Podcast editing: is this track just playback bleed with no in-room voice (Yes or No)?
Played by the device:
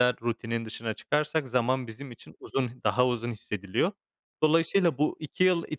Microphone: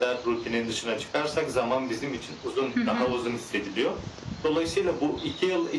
No